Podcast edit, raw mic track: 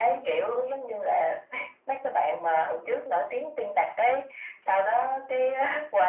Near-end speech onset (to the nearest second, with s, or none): none